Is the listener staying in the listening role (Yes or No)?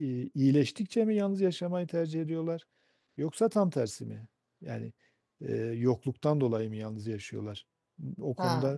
No